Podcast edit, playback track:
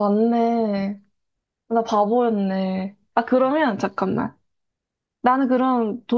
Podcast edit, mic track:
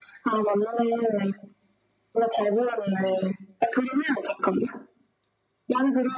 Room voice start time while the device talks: none

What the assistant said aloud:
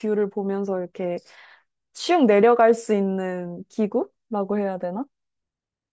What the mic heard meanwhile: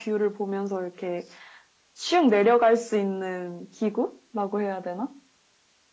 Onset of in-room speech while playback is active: none

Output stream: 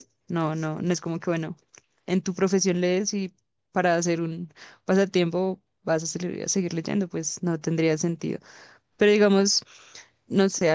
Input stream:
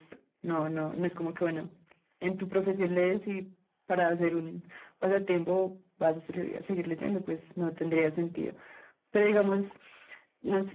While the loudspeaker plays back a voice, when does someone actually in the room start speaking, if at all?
none

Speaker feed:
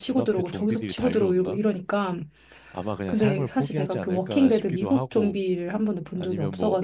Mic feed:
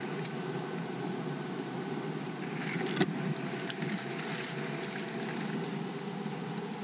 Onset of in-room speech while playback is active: none

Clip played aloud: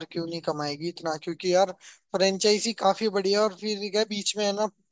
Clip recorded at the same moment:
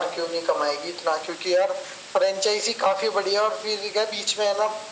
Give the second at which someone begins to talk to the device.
none

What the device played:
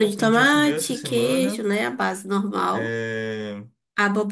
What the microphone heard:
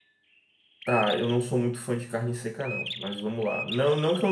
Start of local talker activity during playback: 0.8 s

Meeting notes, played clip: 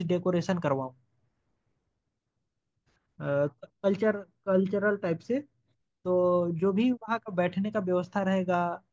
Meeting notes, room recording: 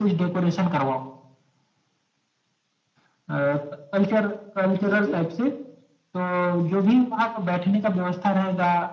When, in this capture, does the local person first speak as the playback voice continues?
4.8 s

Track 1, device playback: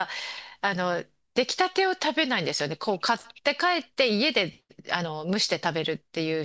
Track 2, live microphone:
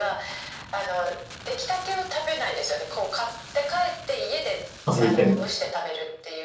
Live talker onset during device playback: 4.9 s

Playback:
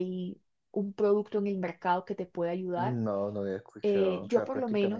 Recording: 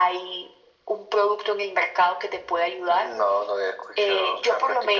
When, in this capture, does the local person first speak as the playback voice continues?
none

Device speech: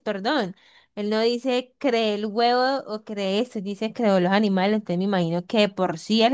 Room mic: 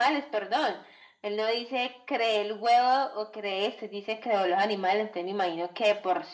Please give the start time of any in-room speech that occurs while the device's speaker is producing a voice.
none

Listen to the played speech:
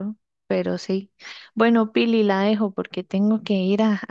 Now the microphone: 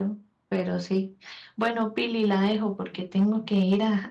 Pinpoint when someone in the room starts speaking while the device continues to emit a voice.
none

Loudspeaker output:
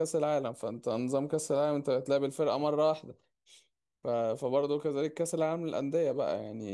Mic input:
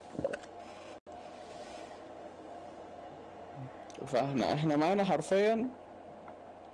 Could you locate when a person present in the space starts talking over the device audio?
4.1 s

